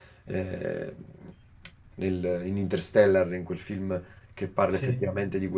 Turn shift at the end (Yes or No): No